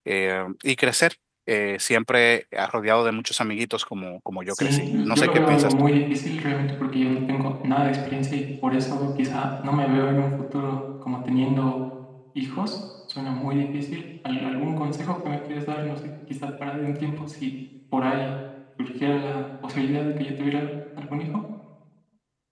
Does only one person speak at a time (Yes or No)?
No